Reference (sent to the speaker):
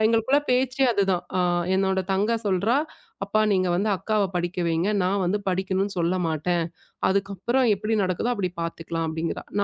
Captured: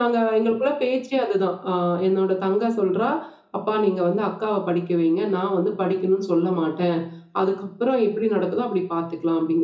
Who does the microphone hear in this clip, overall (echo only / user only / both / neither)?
echo only